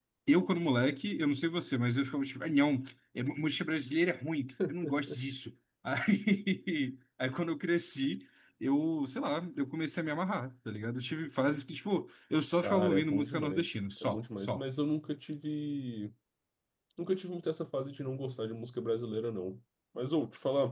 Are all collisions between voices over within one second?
No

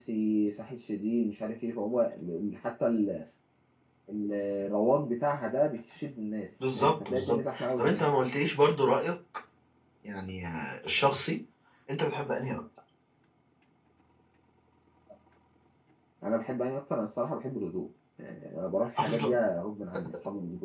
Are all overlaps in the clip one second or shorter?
No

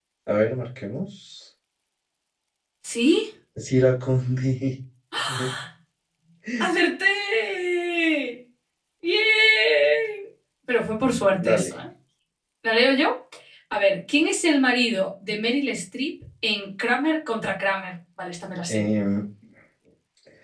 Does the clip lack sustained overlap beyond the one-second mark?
Yes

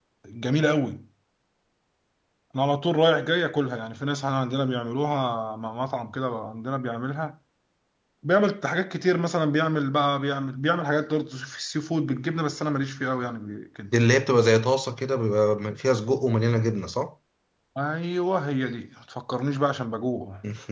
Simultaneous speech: No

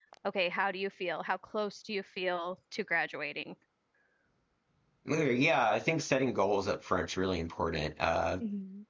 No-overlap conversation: Yes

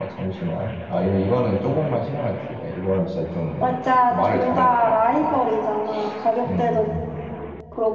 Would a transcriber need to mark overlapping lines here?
Yes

